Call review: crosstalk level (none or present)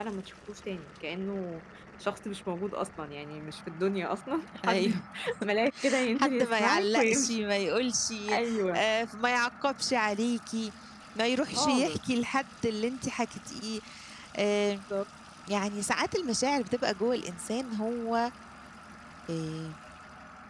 present